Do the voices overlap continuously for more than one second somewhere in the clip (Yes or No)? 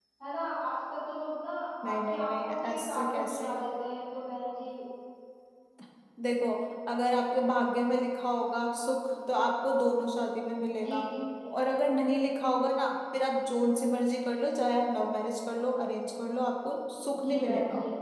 Yes